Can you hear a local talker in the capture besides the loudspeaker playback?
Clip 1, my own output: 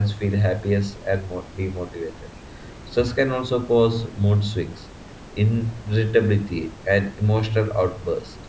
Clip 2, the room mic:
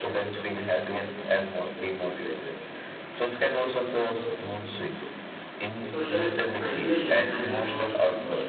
Yes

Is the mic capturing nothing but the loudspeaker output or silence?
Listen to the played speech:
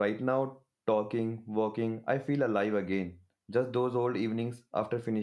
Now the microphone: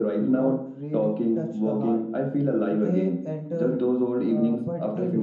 No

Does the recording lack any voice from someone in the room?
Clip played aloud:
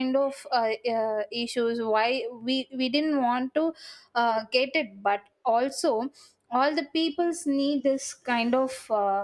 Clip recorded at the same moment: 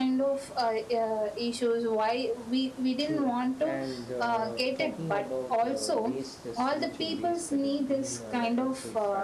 No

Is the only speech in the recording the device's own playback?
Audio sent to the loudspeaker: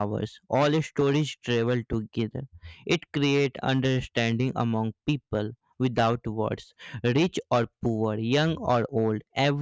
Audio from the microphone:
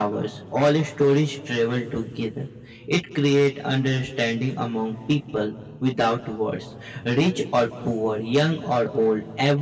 Yes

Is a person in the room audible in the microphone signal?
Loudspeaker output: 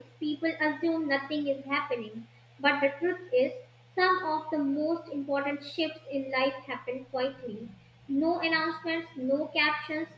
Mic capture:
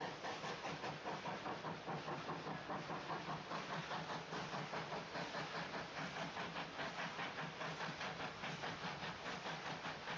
No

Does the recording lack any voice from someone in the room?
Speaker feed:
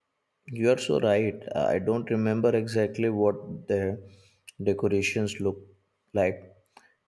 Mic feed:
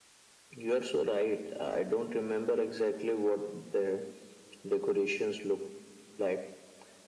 Yes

